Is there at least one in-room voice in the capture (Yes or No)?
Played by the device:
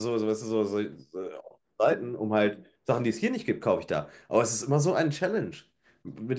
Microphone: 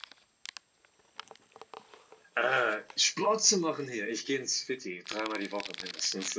Yes